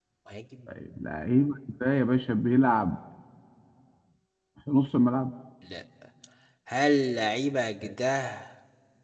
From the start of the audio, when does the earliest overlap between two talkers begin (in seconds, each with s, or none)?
none